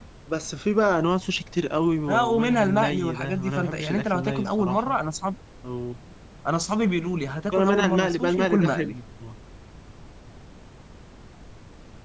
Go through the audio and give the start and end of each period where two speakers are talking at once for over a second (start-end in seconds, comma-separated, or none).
2.1-5.0, 7.5-9.0